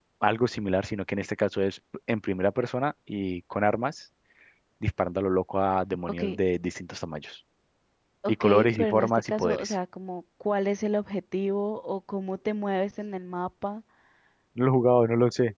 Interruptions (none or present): present